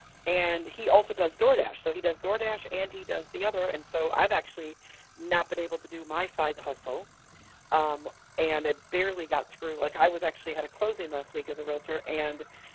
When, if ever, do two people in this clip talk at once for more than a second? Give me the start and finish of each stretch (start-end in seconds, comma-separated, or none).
none